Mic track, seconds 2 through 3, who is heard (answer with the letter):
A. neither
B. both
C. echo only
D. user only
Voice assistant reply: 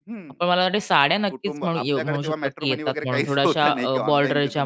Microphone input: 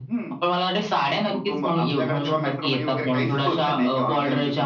C